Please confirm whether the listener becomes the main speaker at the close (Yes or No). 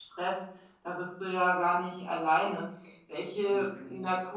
No